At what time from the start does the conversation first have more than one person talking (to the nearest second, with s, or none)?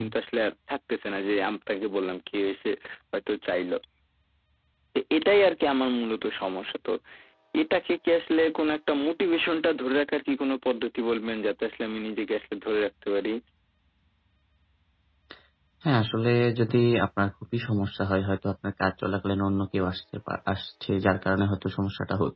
none